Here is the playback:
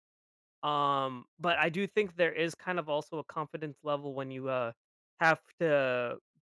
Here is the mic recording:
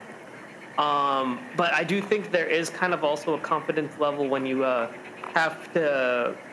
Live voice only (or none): none